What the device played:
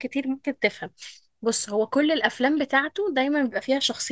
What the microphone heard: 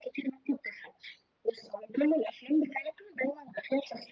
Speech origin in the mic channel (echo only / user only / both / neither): echo only